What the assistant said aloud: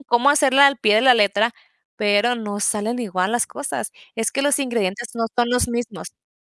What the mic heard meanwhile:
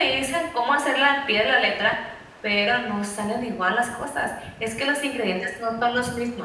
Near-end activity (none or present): none